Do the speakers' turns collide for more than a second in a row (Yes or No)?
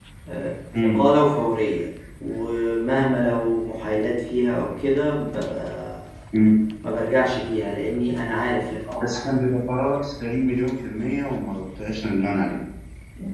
No